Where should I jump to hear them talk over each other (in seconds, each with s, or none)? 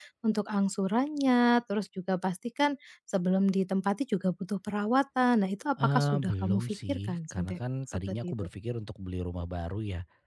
5.8 s